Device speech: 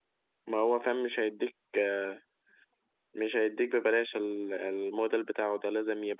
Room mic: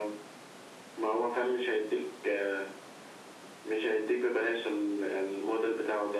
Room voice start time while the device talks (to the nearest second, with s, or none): none